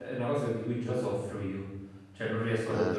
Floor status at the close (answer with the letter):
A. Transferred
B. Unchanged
B